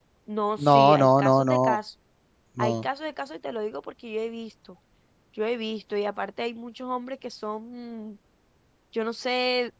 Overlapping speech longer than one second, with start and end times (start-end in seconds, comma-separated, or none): 0.6-1.8